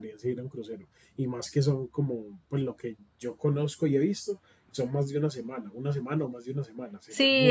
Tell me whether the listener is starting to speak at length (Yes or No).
Yes